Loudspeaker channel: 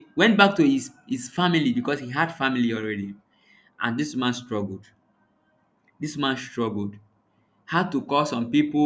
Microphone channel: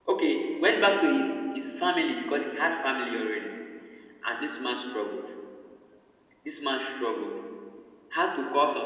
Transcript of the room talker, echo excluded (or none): none